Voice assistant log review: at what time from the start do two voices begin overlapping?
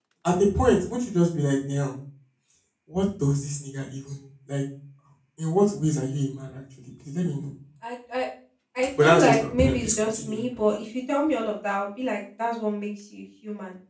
9.0 s

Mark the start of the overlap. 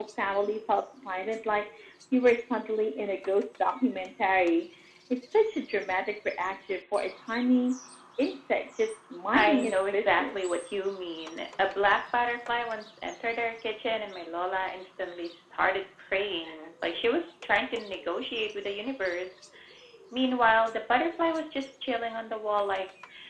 9.3 s

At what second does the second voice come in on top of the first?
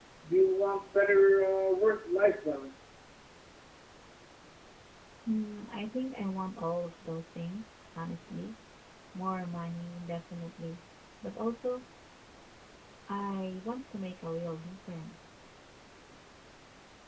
none

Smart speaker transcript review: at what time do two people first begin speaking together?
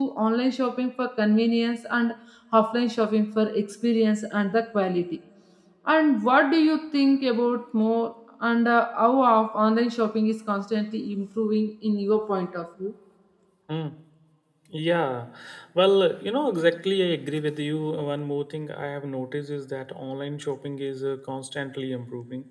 none

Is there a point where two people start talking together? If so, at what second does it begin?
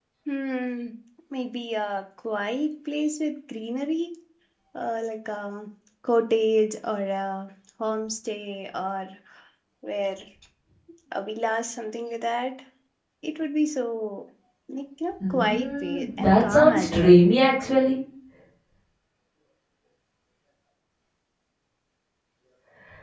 15.3 s

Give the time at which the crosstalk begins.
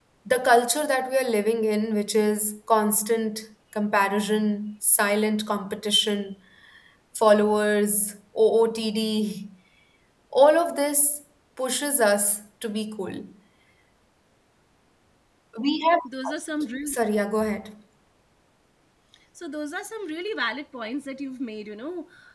none

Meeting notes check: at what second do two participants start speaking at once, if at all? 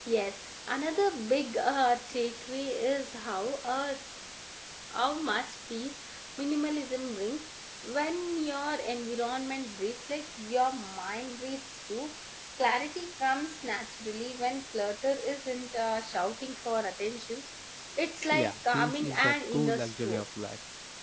18.3 s

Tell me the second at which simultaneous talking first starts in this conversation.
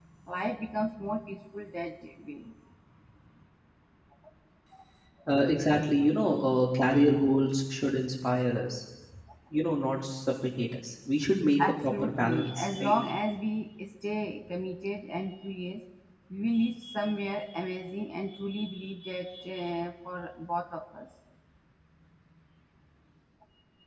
11.6 s

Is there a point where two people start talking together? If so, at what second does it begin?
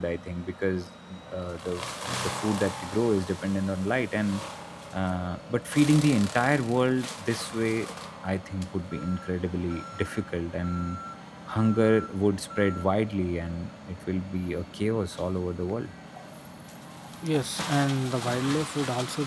none

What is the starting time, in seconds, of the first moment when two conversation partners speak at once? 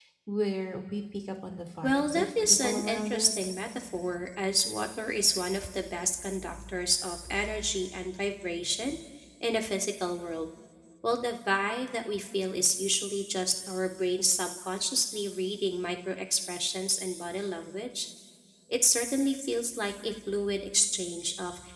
1.8 s

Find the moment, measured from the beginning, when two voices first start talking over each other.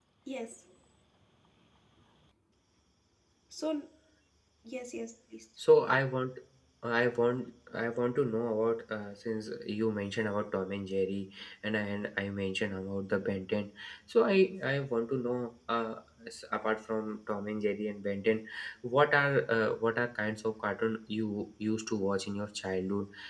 none

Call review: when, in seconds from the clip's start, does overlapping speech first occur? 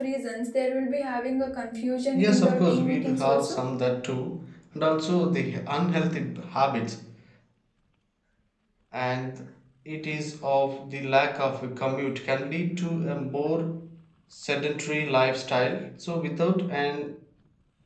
2.1 s

